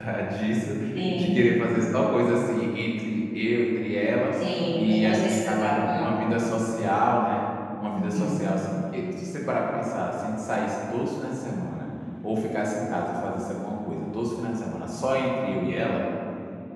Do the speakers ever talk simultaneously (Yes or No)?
Yes